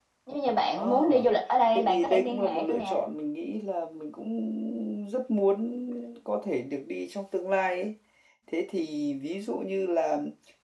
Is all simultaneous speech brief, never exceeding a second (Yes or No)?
No